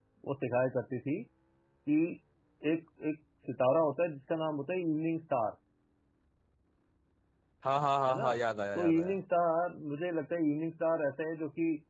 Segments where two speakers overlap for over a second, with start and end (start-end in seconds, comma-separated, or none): none